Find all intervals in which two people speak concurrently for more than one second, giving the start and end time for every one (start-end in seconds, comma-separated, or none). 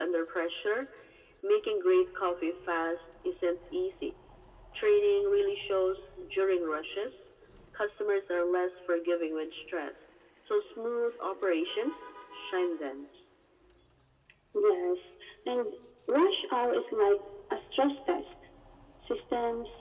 none